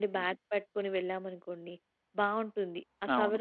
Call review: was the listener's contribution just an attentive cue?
Yes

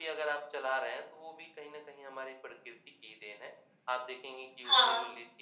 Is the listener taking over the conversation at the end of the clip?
No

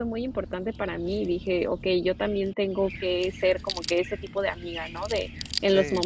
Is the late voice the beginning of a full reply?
No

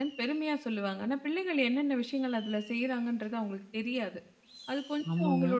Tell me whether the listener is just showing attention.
Yes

